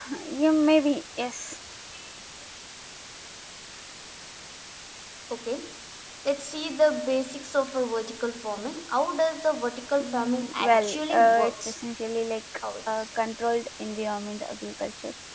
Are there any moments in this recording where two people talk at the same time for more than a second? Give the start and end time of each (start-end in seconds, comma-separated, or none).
10.0-11.8